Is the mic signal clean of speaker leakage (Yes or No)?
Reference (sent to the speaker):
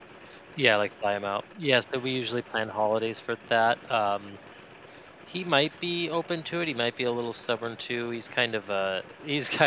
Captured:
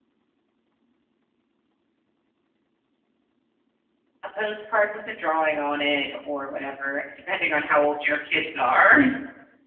Yes